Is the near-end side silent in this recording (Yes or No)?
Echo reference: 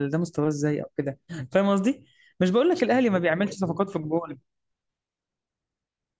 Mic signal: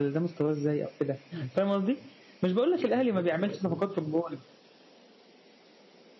Yes